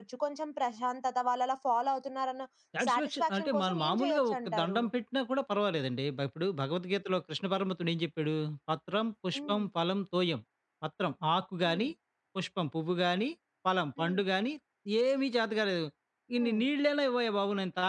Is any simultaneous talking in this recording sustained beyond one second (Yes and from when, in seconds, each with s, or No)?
Yes, from 2.9 s